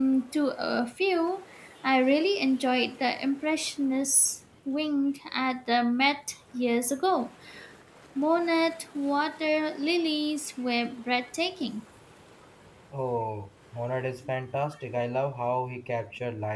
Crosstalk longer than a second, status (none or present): none